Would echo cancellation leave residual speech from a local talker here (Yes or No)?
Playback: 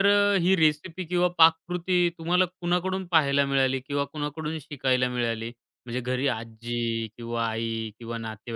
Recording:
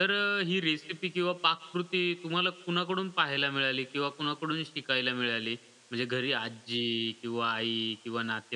No